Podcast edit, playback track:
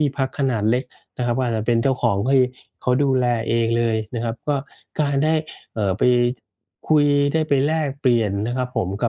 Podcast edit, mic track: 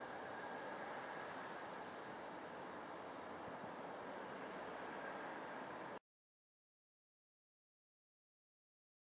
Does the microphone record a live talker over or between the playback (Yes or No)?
No